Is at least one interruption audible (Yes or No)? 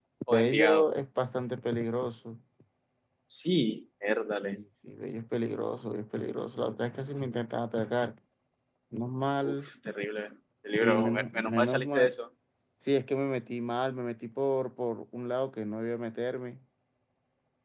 Yes